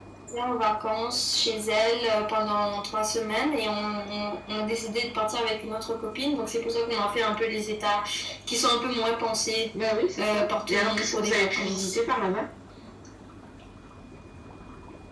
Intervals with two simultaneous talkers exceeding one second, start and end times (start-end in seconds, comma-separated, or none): 10.2-12.0